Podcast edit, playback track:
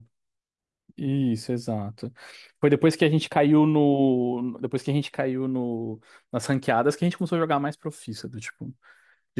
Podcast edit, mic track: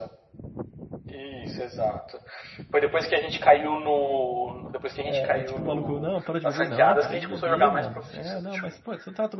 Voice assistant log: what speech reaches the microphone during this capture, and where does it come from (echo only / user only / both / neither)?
both